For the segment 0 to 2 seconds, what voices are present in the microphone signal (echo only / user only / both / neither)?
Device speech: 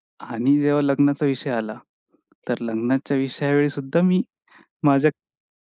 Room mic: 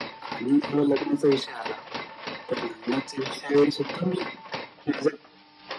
echo only